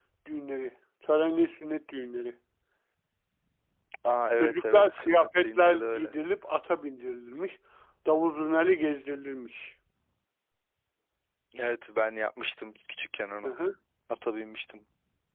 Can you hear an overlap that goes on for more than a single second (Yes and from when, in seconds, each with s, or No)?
Yes, from 4.4 s